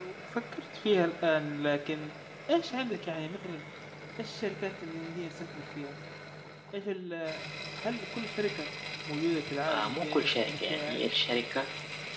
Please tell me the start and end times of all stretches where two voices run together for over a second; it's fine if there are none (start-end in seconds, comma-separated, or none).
9.7-11.1